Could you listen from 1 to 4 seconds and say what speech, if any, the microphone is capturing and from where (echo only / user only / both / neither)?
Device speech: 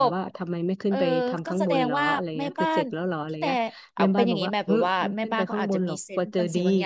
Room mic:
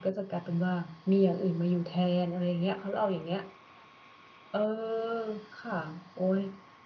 user only